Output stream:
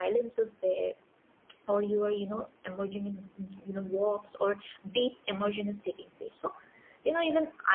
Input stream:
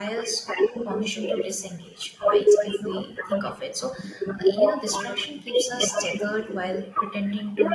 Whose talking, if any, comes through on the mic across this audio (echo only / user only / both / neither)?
both